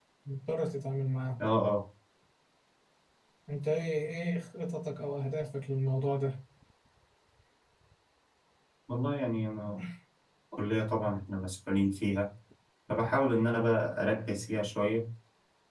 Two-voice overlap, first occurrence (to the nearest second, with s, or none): none